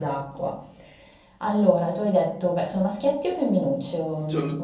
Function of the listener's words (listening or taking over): taking over